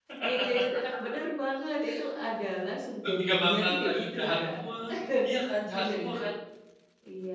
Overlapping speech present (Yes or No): Yes